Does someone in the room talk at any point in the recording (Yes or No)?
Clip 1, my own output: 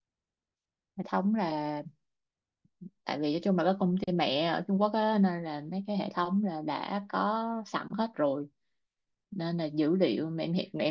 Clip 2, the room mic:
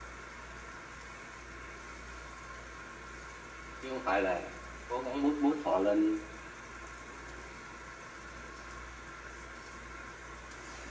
Yes